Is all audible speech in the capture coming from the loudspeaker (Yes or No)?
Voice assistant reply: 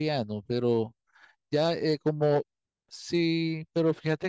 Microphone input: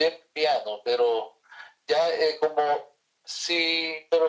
Yes